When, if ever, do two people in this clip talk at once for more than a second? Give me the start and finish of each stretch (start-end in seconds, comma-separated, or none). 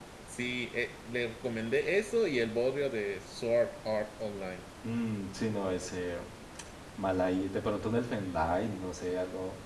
none